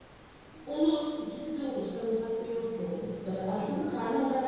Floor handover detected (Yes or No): No